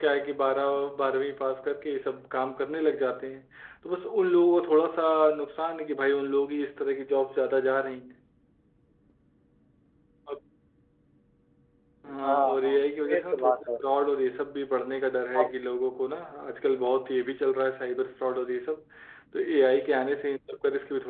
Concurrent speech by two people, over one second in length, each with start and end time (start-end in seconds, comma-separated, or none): 12.2-13.6